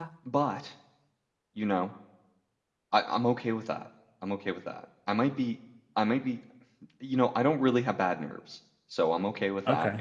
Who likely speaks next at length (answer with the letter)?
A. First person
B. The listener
A